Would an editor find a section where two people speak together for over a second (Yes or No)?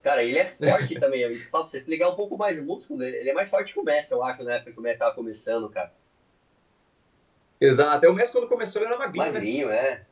No